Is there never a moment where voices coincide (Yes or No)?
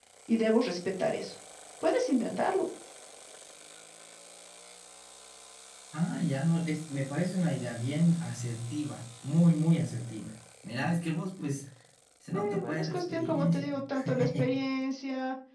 No